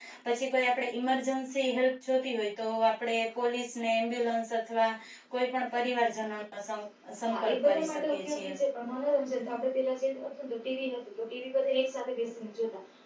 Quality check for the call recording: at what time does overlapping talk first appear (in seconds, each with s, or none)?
7.3 s